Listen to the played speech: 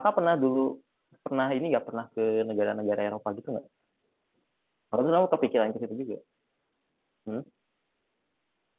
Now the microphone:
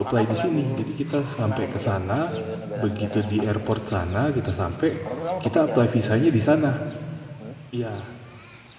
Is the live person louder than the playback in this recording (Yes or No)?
Yes